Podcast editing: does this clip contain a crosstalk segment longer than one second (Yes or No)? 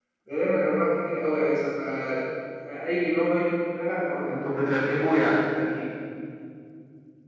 No